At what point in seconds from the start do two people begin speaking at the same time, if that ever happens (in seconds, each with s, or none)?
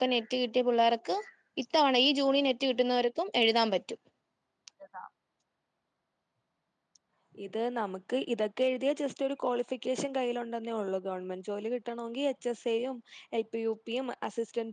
none